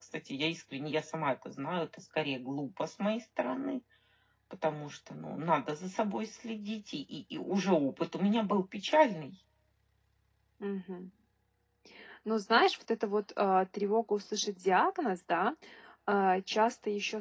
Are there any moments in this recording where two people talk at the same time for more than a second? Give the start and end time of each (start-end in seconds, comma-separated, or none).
none